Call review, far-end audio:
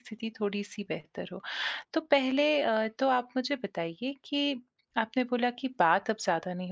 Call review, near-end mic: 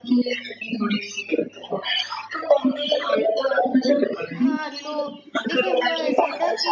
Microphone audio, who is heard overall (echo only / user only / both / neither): both